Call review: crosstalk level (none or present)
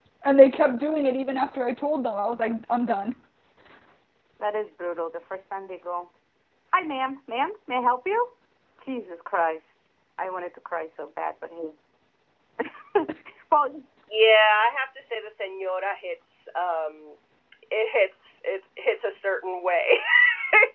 none